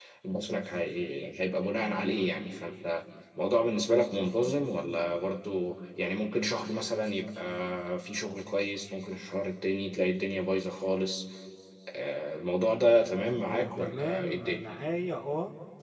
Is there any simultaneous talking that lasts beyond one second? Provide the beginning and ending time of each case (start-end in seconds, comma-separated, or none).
13.2-14.6